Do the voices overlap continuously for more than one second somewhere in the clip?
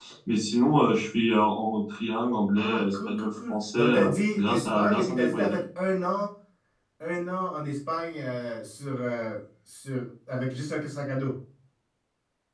Yes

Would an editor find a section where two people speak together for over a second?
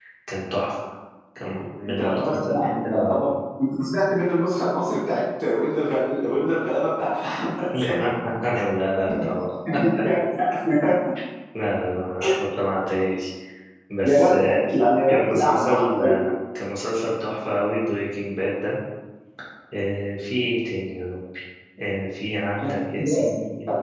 Yes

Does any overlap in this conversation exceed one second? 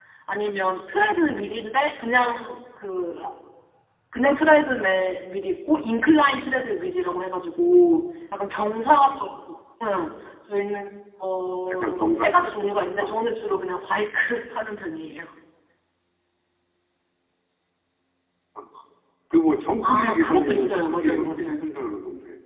Yes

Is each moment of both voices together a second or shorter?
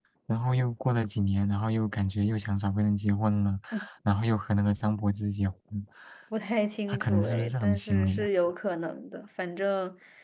No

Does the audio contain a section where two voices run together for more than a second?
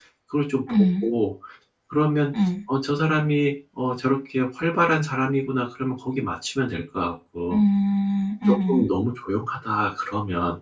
No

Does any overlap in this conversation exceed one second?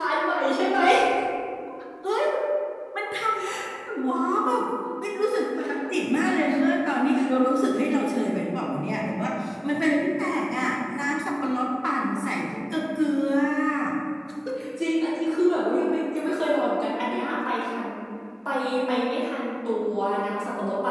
No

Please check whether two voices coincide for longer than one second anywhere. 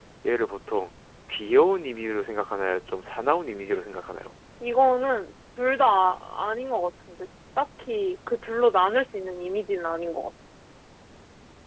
No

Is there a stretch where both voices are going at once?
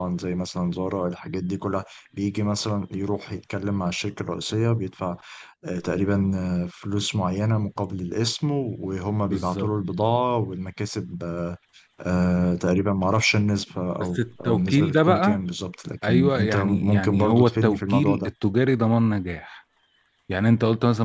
Yes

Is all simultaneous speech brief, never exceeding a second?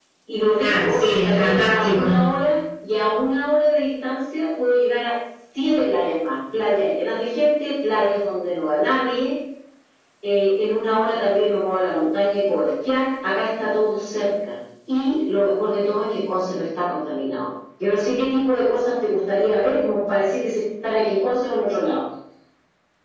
No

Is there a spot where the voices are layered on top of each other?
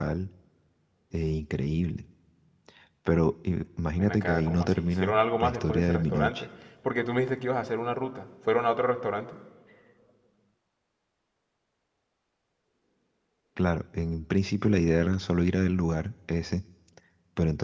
Yes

